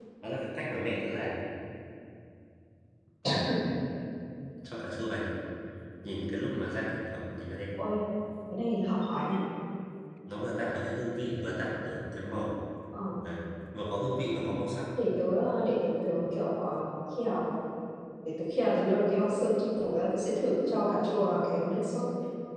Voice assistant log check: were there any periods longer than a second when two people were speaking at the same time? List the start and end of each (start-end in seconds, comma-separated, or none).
none